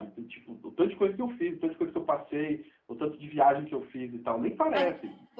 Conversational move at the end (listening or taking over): taking over